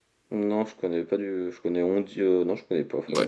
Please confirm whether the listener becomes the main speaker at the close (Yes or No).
Yes